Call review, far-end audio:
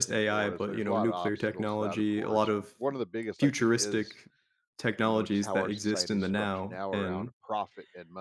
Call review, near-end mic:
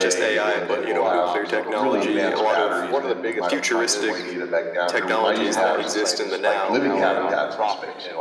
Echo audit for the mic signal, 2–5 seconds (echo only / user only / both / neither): both